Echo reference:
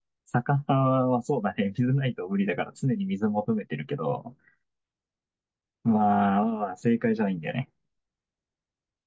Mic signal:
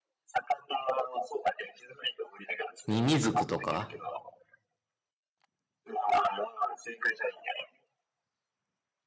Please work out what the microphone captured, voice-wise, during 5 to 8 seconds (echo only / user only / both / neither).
echo only